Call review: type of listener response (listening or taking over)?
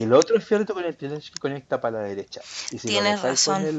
listening